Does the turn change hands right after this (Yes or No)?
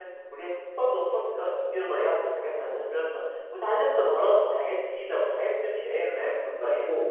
Yes